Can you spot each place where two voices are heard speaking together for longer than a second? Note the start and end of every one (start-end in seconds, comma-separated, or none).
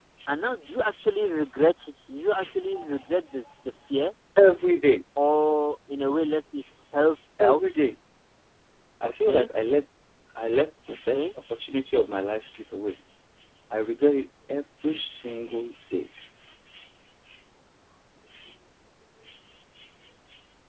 none